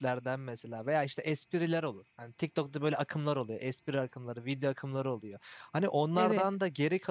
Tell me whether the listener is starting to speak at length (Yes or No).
No